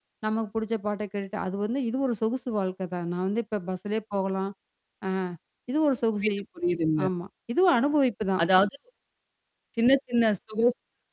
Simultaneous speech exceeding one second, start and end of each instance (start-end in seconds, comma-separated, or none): none